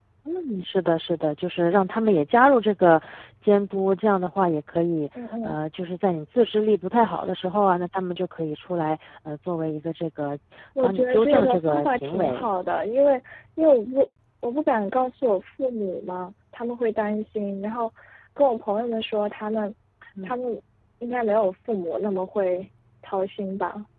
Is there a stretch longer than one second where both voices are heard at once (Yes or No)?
Yes